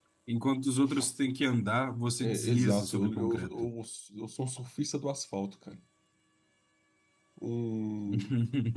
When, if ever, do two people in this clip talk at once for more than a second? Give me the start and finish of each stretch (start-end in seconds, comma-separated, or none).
2.2-3.7